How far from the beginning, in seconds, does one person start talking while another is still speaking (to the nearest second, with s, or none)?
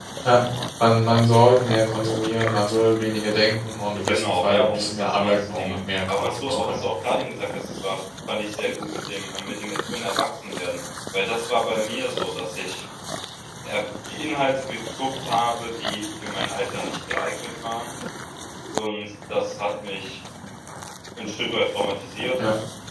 4 s